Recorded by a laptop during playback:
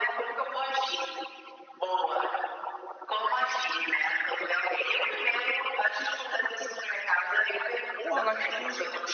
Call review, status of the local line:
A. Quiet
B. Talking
B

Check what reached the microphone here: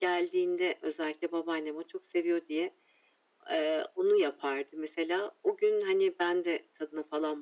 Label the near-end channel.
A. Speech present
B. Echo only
B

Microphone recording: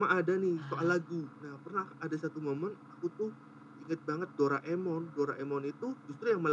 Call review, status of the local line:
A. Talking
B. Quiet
A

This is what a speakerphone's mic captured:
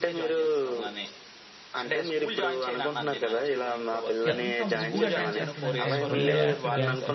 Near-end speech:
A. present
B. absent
A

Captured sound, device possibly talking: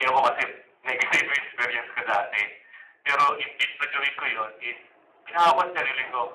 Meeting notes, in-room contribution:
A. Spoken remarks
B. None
A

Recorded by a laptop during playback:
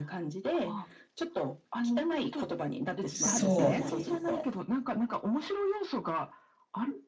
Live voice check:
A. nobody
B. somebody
B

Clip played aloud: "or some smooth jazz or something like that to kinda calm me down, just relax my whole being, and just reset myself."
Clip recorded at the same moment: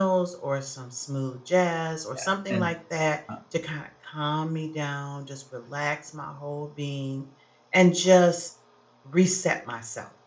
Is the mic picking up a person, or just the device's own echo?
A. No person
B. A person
B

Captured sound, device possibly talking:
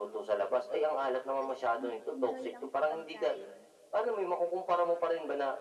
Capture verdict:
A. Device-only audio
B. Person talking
B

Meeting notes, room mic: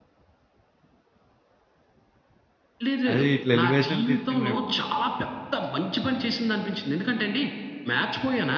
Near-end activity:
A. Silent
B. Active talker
B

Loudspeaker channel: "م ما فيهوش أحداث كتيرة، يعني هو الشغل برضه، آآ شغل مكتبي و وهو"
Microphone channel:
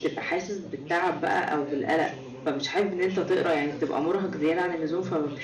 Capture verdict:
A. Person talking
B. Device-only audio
A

